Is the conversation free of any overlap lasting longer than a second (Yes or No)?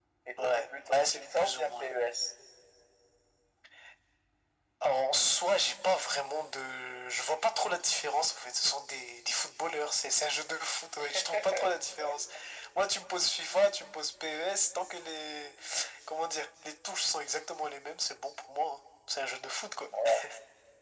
No